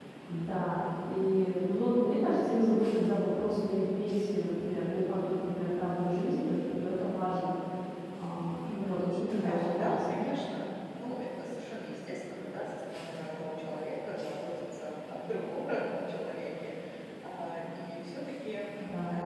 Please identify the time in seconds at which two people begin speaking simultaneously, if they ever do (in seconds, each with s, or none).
8.6 s